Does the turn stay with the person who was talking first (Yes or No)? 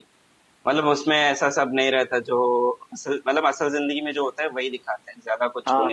No